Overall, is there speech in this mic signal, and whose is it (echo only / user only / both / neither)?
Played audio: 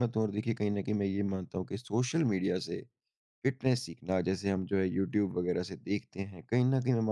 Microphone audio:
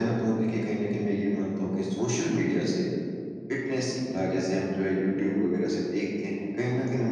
echo only